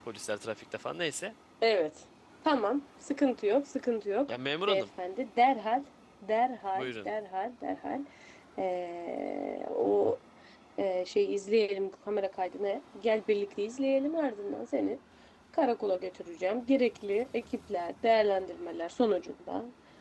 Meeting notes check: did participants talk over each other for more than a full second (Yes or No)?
No